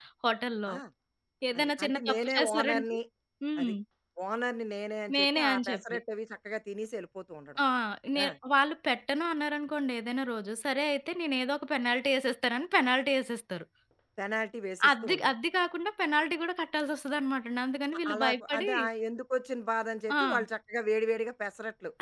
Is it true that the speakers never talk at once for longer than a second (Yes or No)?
No